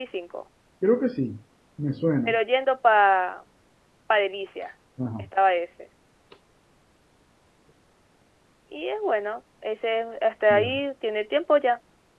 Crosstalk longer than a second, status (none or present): none